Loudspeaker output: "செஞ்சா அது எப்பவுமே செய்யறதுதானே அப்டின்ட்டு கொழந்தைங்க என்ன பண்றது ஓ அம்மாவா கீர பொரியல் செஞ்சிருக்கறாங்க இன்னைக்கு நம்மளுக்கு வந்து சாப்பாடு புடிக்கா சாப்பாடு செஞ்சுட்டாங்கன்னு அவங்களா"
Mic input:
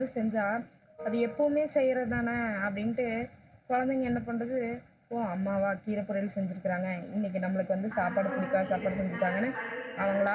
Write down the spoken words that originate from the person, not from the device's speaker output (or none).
அந்த முருங்கை கீரை நல்லா கழுவிட்டு